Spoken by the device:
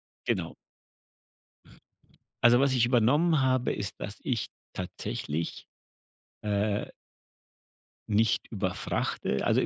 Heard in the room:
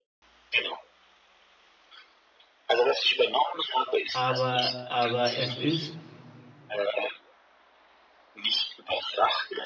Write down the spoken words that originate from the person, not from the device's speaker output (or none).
aber aber es ist,